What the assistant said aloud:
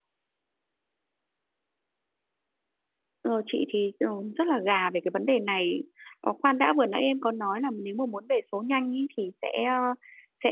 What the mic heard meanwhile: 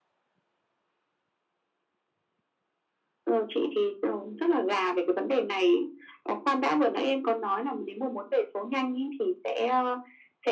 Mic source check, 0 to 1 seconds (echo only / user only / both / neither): neither